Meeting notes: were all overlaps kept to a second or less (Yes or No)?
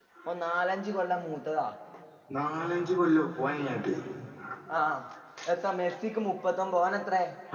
Yes